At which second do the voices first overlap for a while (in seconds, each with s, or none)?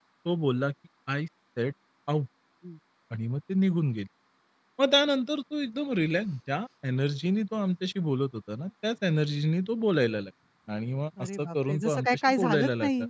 11.2 s